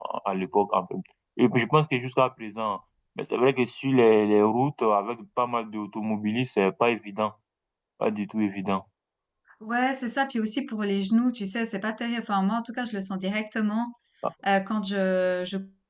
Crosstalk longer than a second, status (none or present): none